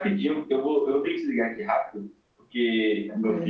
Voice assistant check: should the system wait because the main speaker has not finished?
Yes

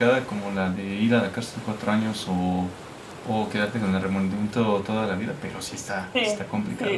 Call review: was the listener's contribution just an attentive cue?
No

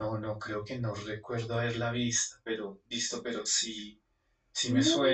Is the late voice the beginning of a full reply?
Yes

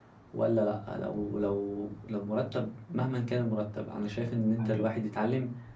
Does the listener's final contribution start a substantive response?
No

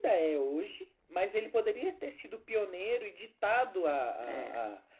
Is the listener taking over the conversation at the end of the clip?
No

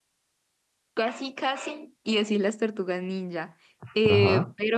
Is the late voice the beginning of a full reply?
No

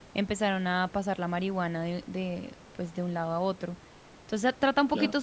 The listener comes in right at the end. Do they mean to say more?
No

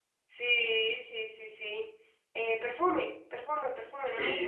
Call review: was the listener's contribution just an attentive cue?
No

